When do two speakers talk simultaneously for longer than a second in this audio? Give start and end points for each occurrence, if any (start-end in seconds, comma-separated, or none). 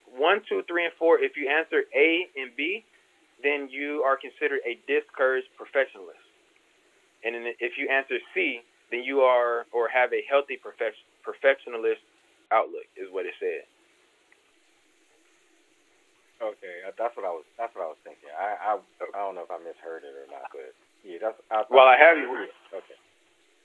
none